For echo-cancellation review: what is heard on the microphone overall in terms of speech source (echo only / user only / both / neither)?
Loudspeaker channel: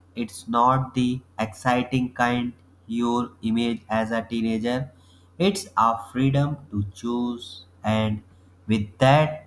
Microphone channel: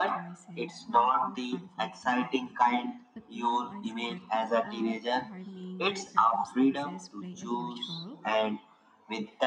both